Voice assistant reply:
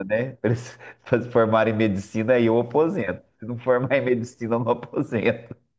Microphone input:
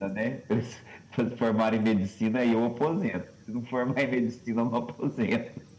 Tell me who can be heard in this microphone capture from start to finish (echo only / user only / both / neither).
echo only